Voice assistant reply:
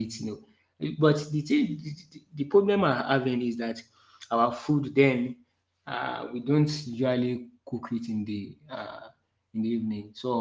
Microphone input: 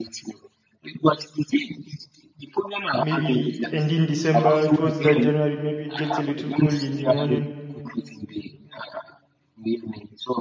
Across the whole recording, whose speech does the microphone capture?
both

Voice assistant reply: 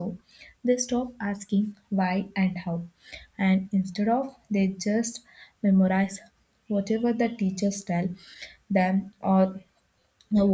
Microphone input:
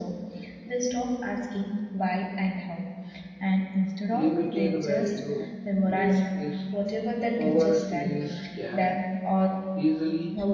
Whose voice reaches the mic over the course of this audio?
both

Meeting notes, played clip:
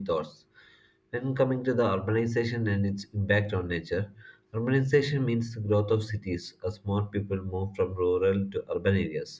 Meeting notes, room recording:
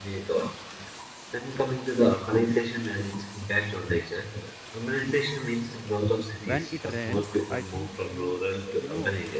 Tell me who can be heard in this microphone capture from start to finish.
both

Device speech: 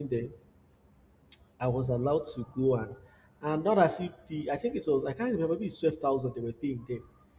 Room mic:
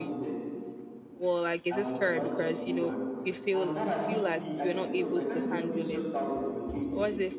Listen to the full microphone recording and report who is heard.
both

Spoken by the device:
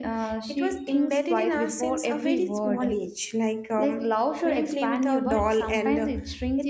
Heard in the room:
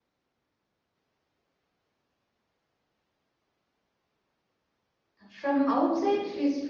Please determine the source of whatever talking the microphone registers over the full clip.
user only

